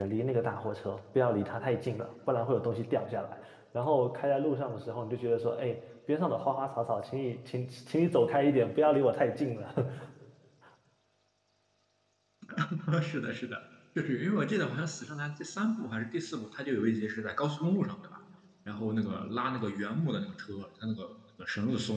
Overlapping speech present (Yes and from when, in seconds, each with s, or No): No